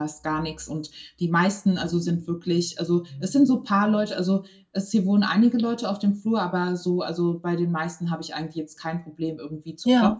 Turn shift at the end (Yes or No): No